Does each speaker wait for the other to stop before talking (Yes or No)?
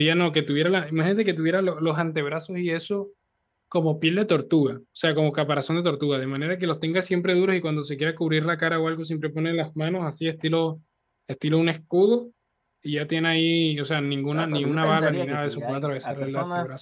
No